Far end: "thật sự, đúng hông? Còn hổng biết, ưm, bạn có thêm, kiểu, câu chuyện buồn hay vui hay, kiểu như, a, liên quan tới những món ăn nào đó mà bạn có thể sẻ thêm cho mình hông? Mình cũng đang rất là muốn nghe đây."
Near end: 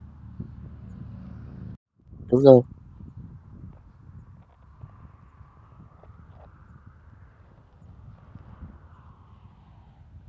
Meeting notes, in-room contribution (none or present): present